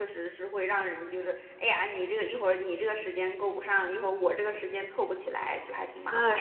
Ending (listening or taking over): taking over